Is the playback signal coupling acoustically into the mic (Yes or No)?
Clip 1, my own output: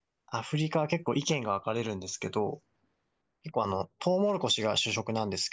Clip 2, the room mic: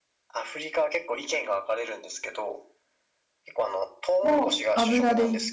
Yes